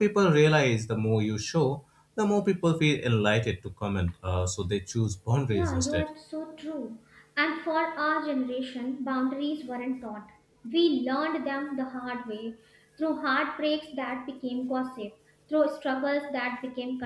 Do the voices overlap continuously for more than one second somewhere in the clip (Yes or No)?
No